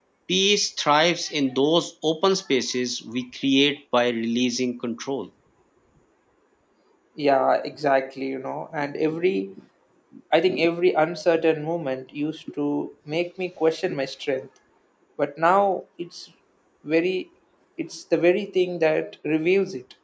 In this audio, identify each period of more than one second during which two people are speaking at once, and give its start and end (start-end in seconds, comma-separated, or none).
none